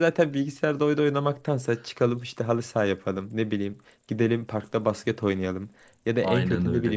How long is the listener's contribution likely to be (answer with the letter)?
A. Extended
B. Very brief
B